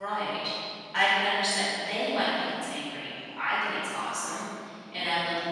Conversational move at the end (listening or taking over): listening